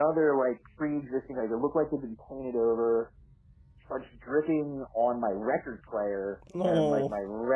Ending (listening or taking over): listening